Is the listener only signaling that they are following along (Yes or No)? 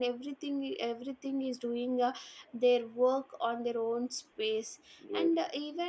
Yes